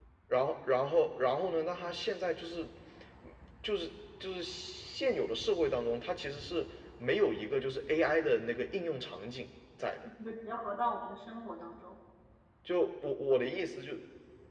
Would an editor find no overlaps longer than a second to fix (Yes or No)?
Yes